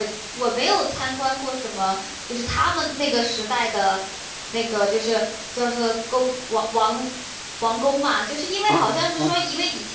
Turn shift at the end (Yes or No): No